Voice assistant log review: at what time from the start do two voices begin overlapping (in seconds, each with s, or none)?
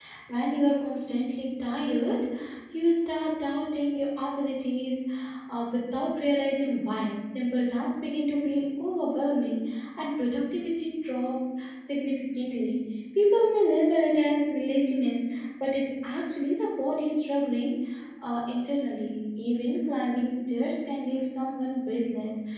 none